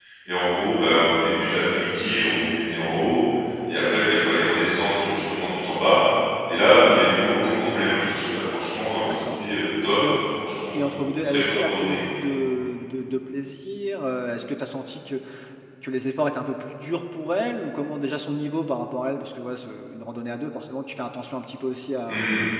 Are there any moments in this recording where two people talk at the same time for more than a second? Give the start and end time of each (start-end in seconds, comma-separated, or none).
10.7-12.0